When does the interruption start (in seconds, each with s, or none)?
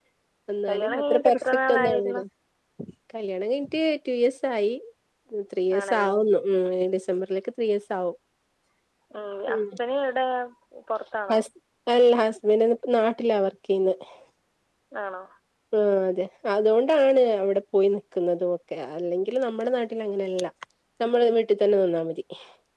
0.7 s